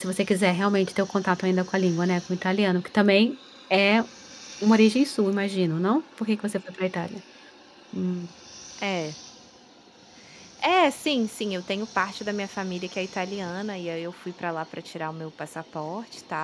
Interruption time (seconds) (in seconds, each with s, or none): none